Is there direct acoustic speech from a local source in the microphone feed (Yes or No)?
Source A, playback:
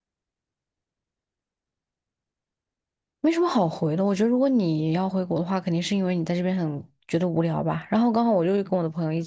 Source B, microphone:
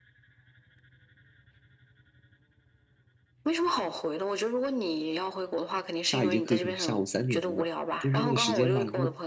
Yes